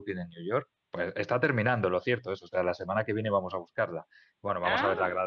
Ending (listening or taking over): listening